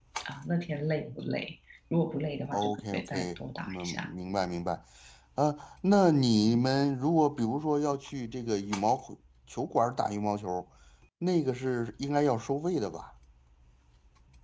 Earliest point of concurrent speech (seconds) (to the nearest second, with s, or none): 3 s